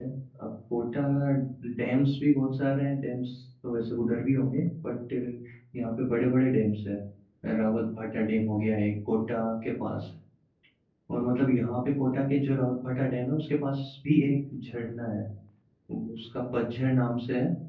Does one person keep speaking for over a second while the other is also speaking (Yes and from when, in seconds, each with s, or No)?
No